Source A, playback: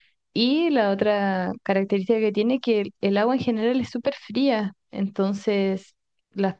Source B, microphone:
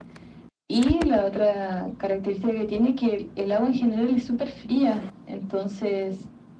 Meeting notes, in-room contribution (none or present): none